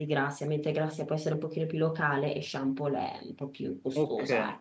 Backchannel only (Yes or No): No